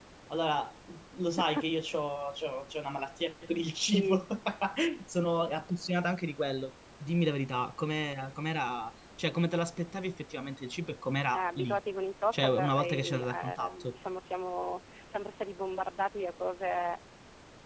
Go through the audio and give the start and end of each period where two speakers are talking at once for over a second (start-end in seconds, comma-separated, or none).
12.3-13.8